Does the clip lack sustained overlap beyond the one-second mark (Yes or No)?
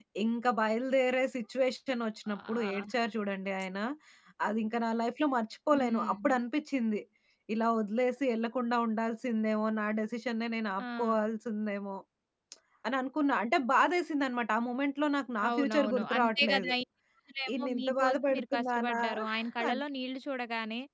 No